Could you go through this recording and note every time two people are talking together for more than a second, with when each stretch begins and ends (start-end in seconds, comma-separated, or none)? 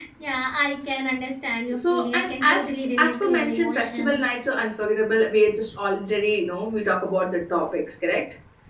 1.7-4.2